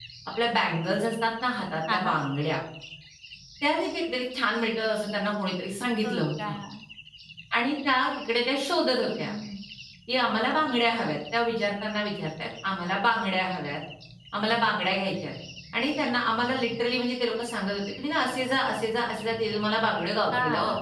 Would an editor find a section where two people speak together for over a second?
No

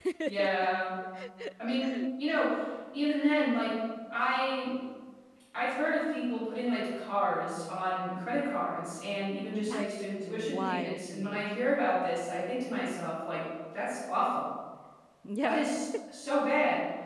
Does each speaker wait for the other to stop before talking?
No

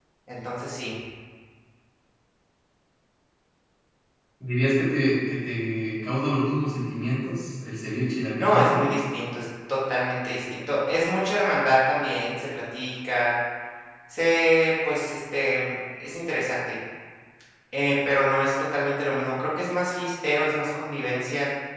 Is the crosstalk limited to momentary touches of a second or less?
Yes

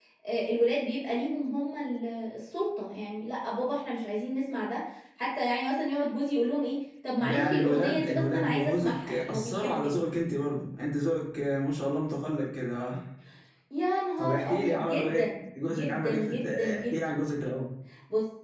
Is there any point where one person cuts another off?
Yes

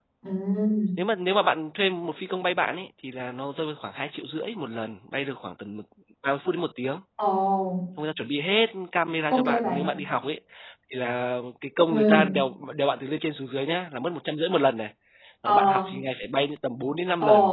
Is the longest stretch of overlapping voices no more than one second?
Yes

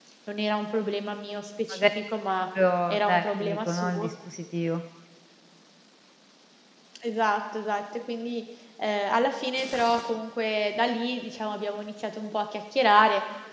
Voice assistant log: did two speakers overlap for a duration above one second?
Yes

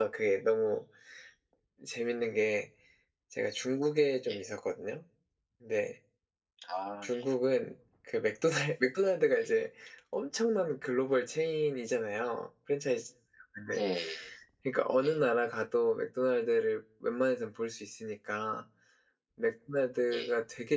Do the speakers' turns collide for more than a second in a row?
No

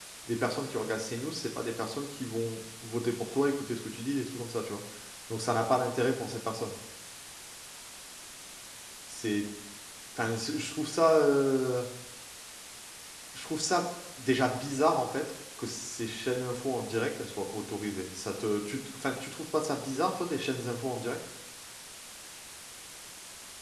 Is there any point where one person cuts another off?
No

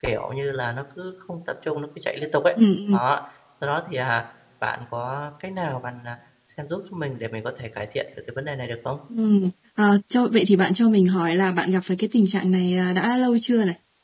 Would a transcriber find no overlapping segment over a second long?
Yes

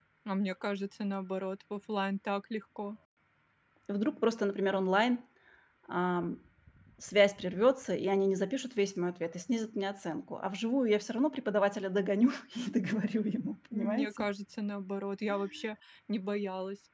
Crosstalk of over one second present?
No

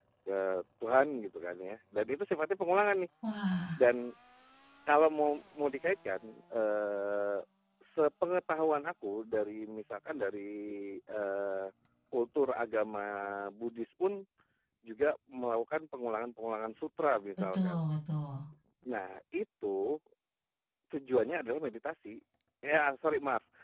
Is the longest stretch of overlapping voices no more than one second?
Yes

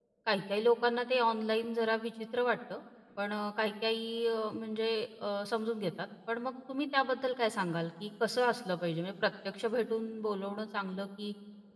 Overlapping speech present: No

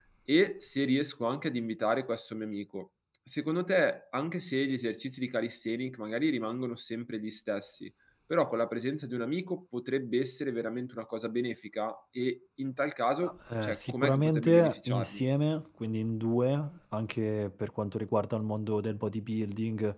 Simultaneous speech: Yes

